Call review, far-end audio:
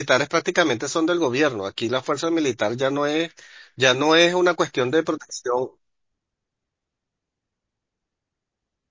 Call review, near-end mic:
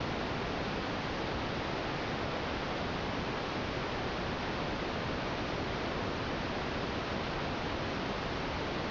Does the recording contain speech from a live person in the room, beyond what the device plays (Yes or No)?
No